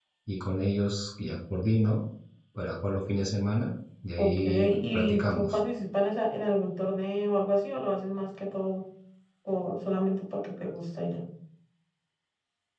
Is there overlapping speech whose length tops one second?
Yes, from 4.2 s

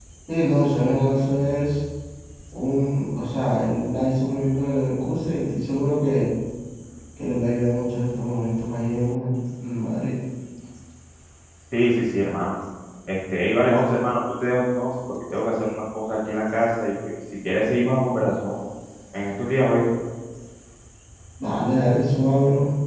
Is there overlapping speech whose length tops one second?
No

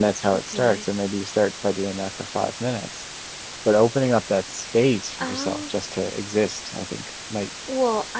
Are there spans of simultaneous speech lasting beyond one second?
No

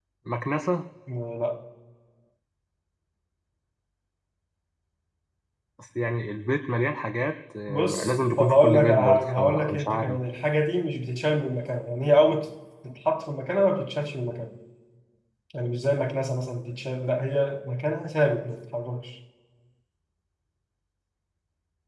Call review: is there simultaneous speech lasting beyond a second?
Yes, from 7.7 s

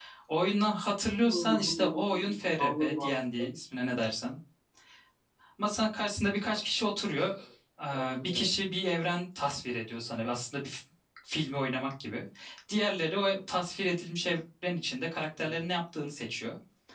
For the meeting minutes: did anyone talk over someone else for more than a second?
Yes, from 1.2 s

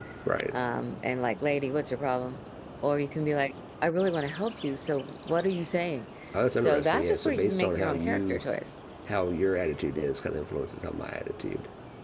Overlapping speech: Yes, from 6.5 s

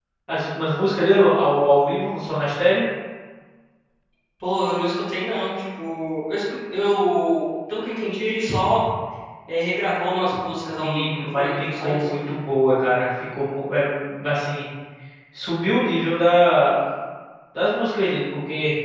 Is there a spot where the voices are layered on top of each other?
Yes, from 10.8 s

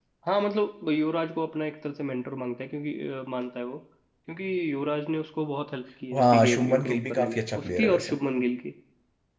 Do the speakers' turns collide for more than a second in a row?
Yes, from 6.1 s

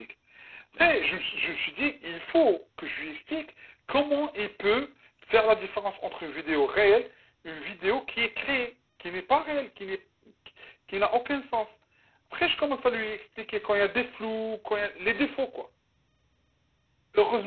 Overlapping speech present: No

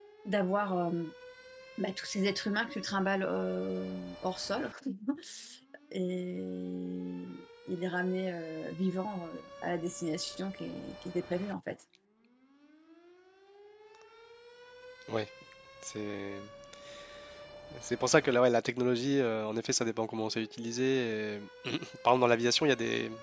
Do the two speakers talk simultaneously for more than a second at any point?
No

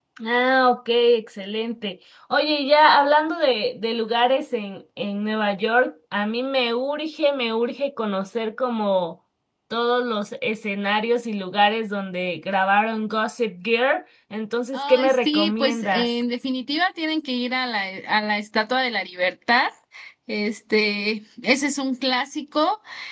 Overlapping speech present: Yes, from 14.7 s

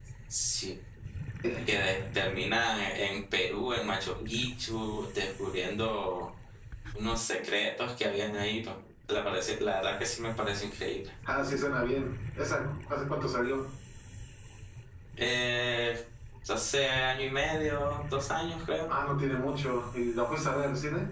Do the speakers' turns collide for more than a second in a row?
No

